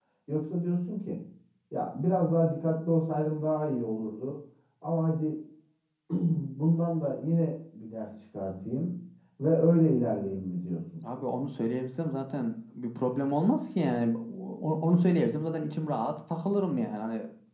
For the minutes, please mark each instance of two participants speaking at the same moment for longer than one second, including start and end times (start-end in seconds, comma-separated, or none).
none